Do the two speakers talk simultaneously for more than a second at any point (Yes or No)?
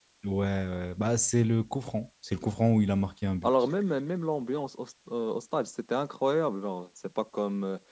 No